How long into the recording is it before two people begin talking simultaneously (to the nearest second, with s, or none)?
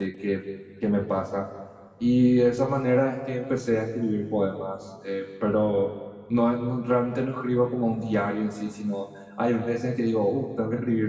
none